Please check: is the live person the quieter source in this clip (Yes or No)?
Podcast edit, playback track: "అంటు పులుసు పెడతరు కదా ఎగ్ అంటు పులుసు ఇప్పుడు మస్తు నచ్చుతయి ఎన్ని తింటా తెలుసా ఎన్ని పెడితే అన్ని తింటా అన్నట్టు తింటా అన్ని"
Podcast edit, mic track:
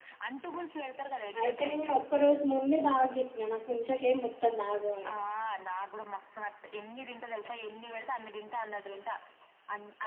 No